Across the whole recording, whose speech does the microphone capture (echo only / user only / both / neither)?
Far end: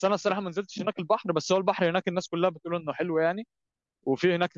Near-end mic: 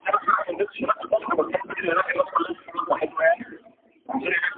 echo only